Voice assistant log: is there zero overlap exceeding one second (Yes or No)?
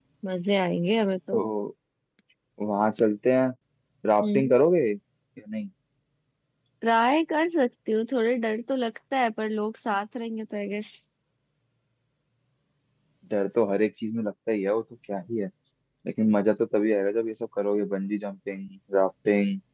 Yes